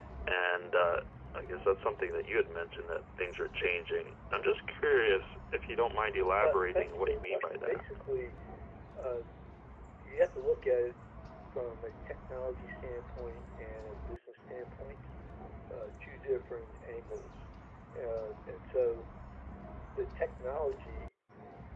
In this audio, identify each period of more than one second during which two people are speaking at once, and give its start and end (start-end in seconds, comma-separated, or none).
6.4-7.8